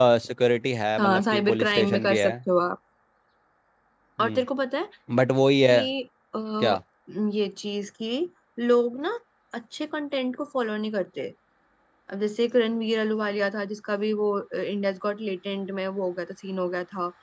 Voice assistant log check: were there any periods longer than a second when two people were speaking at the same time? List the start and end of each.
1.0-2.3

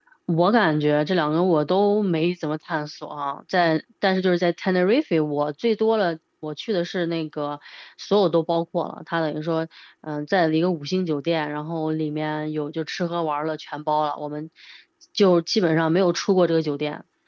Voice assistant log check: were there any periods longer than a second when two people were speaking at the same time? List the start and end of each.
none

